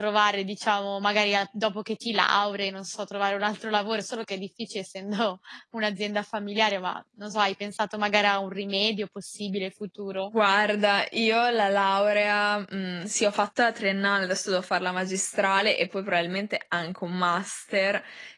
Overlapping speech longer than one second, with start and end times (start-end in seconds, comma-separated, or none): none